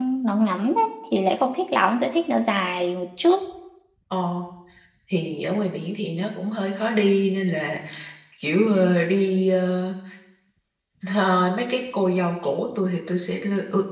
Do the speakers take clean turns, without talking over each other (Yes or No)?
Yes